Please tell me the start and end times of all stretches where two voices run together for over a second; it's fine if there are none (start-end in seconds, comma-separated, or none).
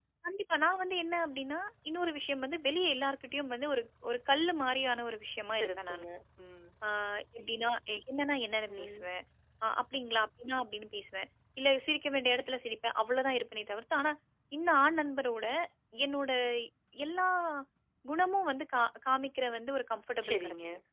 none